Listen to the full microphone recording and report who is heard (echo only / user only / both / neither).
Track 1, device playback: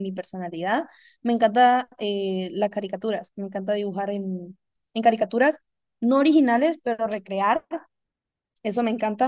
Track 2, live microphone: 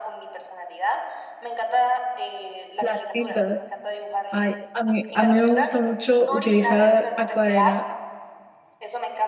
both